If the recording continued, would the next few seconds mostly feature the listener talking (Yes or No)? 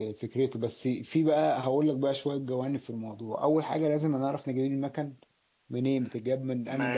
Yes